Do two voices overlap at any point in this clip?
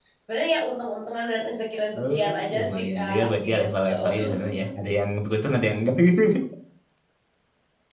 Yes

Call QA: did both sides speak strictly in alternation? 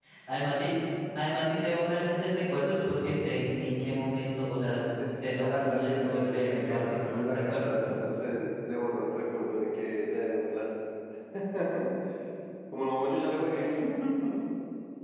No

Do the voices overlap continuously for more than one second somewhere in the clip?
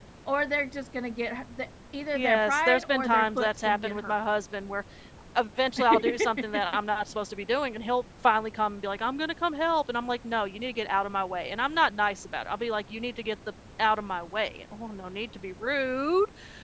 Yes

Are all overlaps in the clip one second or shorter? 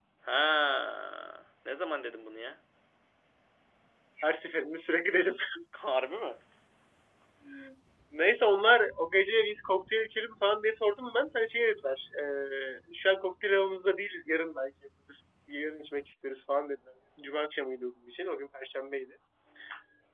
Yes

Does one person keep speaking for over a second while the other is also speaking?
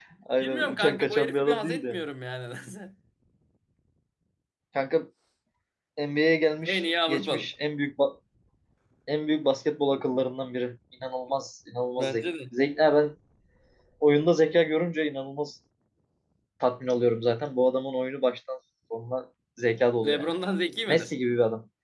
Yes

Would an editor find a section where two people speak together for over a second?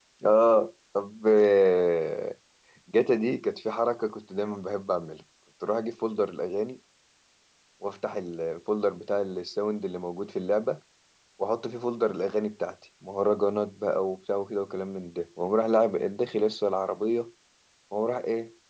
No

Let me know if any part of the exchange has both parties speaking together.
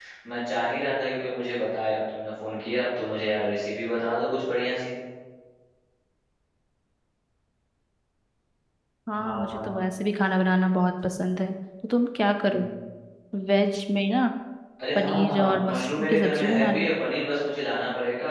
Yes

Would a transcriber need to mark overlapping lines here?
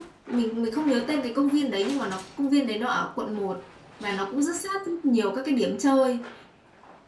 No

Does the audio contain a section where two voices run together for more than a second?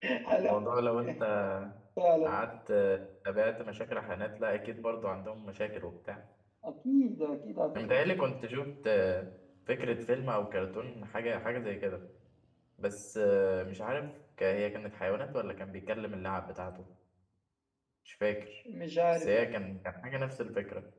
No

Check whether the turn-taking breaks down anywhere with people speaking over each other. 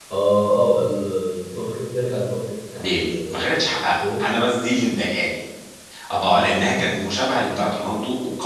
Yes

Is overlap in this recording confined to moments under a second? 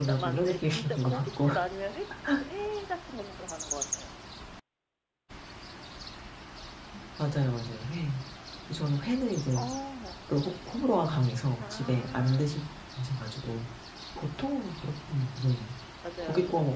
No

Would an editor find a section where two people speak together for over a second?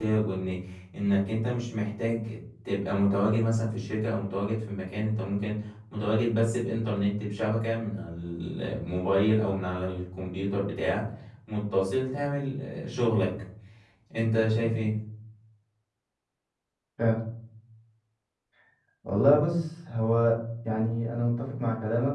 No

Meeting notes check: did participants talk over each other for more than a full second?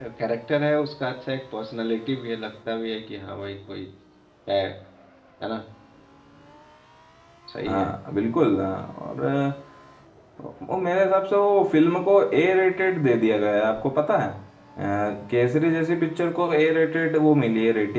No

